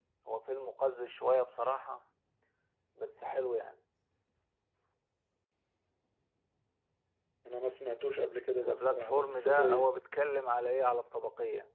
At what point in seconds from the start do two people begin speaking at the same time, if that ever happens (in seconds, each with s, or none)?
8.6 s